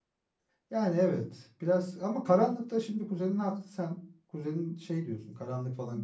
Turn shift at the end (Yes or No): Yes